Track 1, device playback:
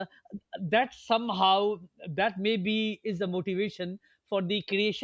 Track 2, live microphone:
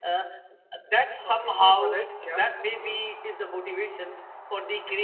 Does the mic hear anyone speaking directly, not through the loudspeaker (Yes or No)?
Yes